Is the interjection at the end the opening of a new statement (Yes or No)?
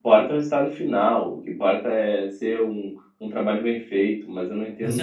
Yes